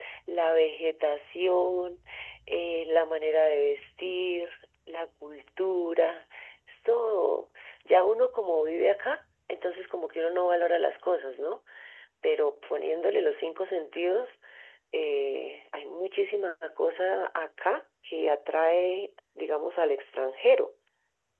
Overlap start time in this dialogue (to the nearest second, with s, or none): none